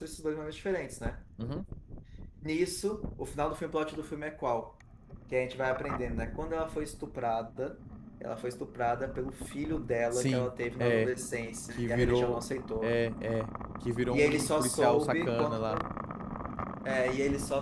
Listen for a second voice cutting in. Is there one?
Yes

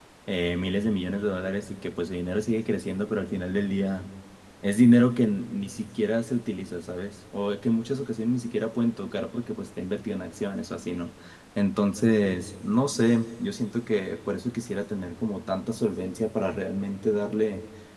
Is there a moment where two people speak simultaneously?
No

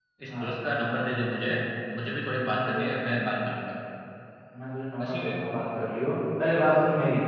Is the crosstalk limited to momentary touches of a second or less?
Yes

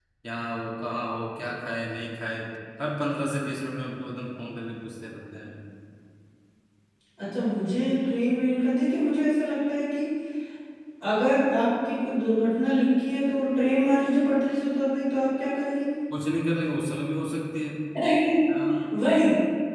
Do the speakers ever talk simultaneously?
No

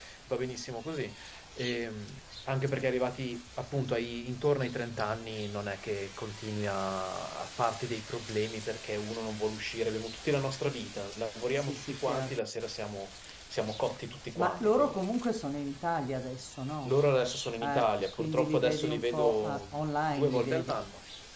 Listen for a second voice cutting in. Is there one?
Yes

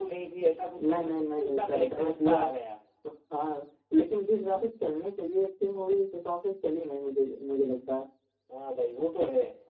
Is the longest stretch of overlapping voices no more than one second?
No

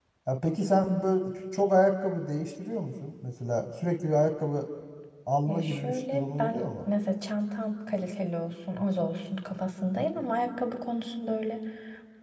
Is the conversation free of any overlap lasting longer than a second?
No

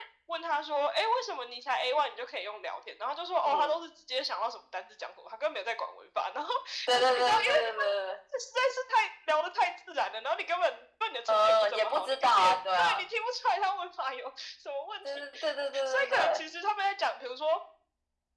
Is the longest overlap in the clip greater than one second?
Yes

